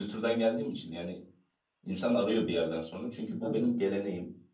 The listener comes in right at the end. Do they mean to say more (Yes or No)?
No